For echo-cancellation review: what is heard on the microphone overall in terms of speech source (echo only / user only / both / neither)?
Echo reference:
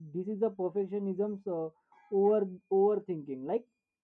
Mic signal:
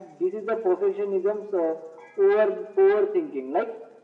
echo only